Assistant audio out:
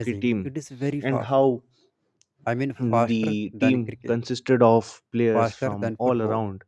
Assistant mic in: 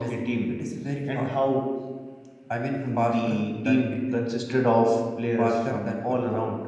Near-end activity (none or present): none